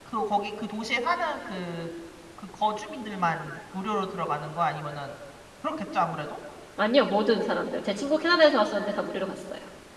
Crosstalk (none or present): none